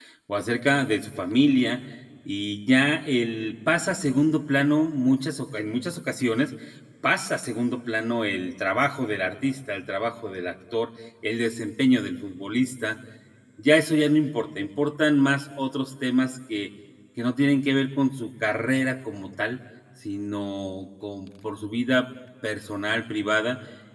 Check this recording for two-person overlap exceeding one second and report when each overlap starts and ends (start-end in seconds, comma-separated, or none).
none